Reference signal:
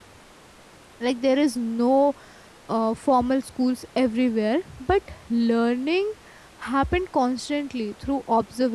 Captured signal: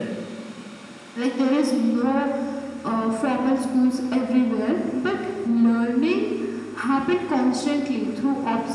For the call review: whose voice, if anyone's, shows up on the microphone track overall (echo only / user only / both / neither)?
echo only